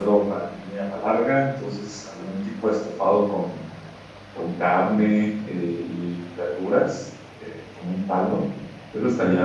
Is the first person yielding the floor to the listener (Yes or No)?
No